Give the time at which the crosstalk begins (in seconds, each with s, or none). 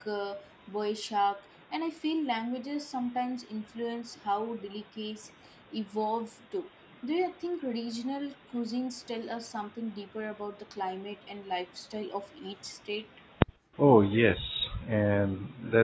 none